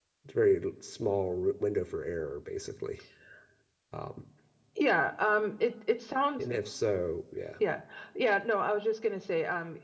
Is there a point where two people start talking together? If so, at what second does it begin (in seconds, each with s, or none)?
none